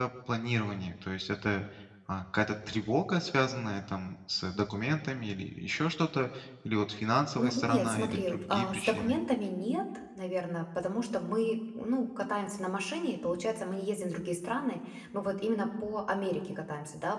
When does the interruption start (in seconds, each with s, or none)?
7.4 s